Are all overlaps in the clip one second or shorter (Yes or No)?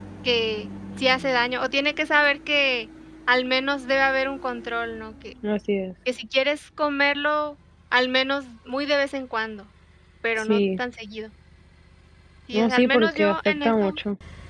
No